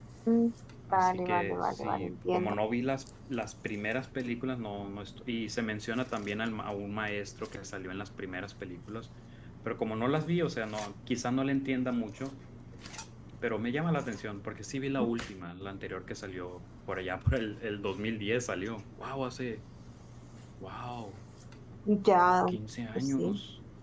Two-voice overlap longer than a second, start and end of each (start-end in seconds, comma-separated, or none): 0.9-2.5